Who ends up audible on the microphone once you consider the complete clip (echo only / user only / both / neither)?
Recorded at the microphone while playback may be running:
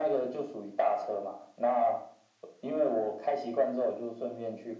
echo only